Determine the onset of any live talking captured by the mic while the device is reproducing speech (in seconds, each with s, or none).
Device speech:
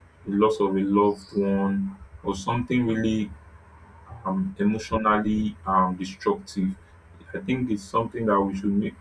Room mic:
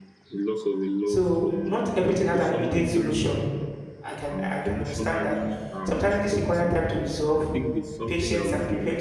1.0 s